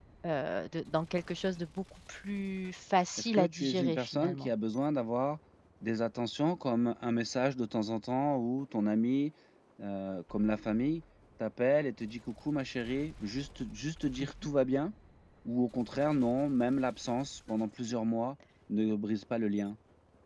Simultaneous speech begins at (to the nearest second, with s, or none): 3 s